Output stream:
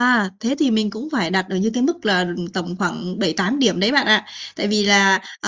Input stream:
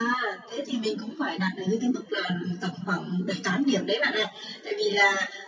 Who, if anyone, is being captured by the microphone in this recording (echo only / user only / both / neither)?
echo only